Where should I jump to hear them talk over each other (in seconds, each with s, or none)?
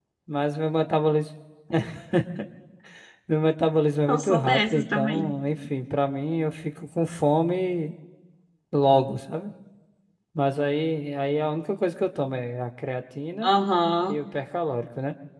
4.1 s